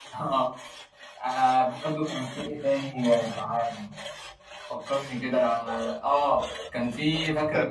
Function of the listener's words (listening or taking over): listening